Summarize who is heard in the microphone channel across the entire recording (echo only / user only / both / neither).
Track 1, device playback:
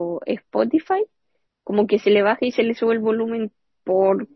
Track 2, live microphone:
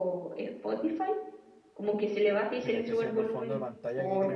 both